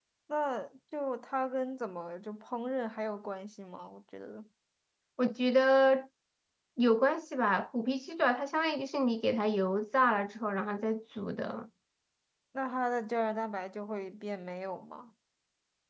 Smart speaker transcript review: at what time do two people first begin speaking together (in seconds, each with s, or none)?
none